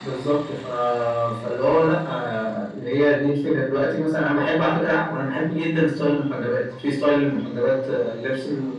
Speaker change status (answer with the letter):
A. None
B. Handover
A